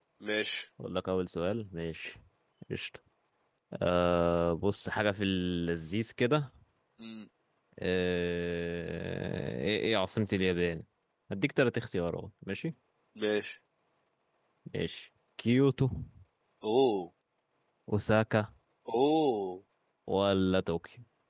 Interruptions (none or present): none